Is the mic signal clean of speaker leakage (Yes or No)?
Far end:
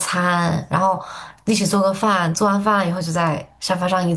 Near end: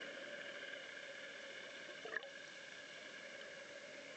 Yes